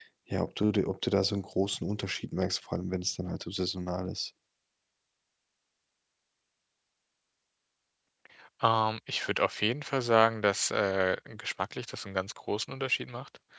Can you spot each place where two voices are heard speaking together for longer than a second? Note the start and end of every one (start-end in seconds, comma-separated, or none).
none